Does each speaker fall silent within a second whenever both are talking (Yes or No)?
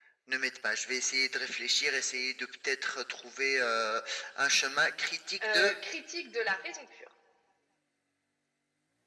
Yes